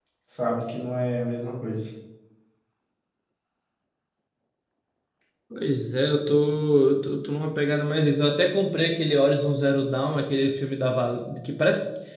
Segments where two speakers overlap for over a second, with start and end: none

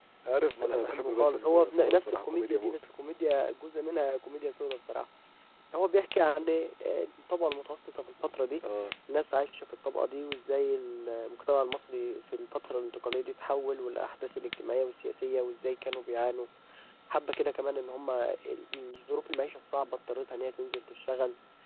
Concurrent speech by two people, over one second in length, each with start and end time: 0.6-2.8

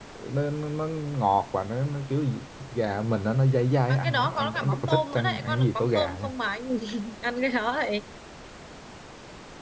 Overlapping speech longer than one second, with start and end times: 3.9-6.3

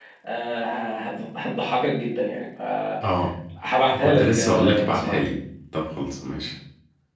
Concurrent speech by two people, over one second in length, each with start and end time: 4.0-5.2

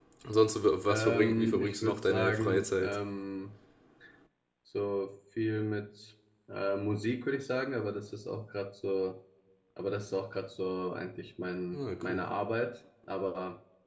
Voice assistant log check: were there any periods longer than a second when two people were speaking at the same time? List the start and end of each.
0.9-3.0

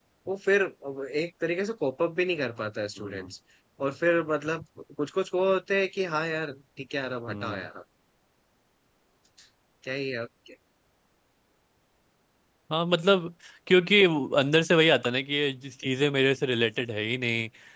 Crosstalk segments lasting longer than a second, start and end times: none

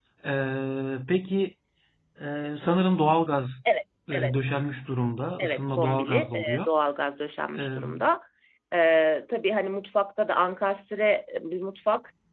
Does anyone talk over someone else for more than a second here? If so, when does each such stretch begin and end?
5.4-6.7

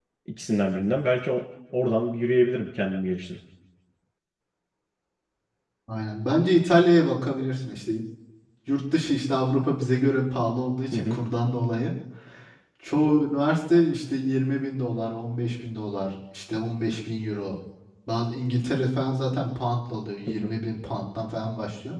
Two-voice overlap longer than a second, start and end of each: none

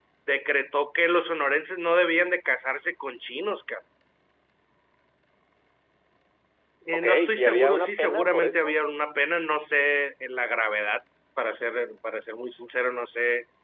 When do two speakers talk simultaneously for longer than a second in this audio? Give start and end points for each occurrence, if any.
6.9-8.7

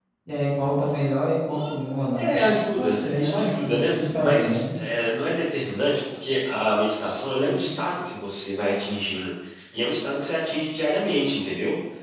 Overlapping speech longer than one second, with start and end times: 2.1-4.6

